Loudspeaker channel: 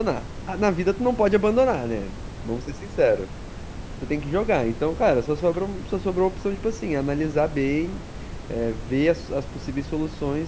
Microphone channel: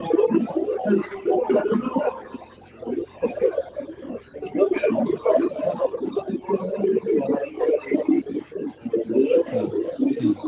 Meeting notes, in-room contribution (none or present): present